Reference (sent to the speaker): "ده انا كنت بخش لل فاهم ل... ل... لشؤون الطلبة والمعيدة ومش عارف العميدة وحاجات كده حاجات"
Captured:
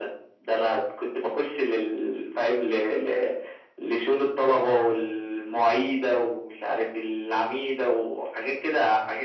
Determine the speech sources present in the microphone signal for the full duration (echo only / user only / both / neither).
echo only